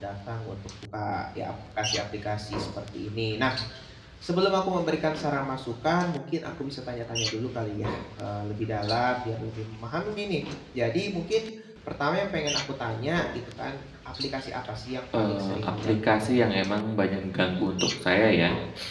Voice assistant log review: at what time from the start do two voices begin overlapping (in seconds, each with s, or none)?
15.1 s